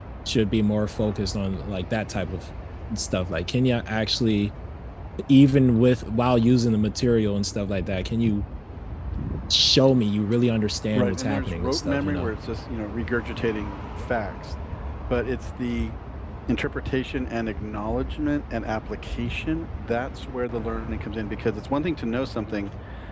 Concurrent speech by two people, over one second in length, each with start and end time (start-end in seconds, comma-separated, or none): 10.9-12.3